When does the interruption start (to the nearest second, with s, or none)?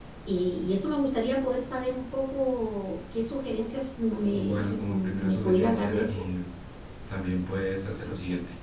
4 s